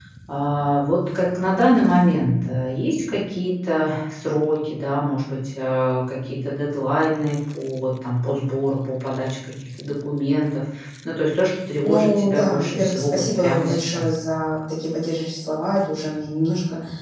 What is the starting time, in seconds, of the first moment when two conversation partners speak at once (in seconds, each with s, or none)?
11.8 s